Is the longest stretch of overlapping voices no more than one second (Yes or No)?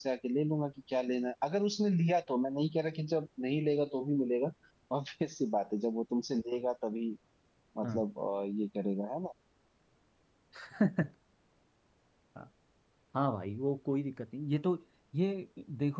Yes